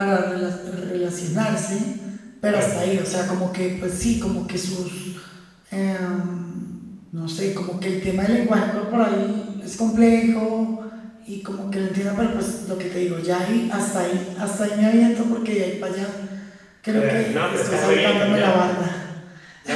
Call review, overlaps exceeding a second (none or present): present